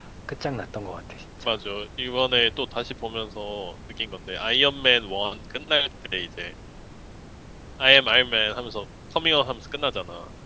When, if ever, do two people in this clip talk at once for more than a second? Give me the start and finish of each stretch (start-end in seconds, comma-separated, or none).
none